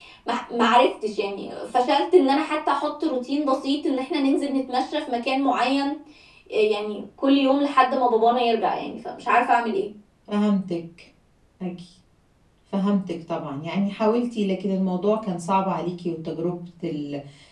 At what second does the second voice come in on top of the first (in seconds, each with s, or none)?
none